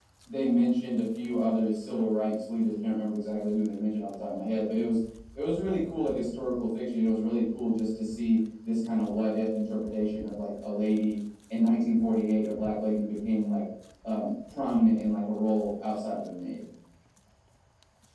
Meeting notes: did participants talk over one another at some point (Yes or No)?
No